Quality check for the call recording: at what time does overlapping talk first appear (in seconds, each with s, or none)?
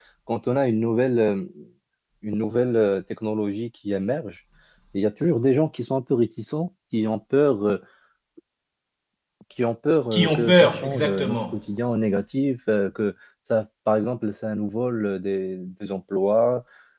10.1 s